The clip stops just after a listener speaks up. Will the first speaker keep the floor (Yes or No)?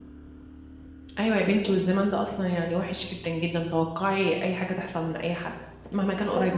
No